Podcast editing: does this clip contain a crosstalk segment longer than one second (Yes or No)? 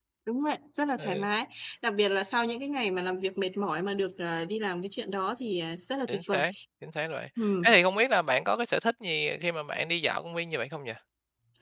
No